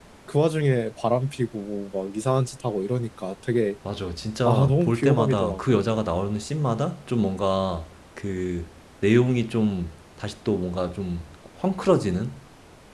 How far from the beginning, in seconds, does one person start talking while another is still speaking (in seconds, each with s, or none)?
4.5 s